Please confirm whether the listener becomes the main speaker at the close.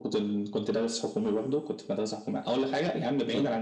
No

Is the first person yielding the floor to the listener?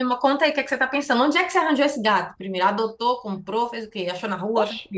Yes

